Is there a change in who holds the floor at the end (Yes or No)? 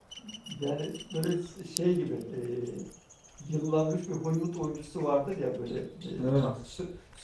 No